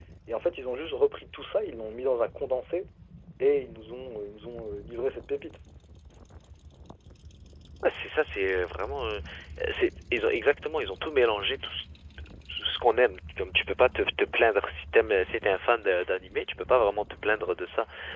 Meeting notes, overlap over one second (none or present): none